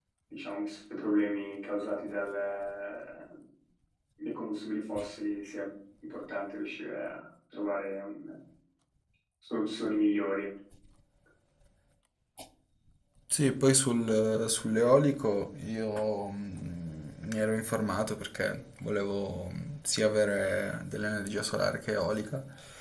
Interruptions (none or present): none